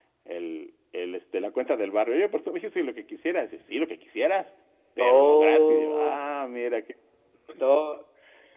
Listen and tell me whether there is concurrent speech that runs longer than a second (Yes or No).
Yes